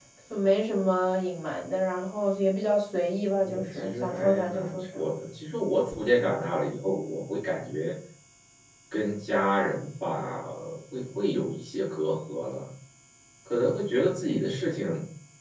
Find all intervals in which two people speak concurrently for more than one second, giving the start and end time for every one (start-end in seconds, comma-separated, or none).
3.4-5.1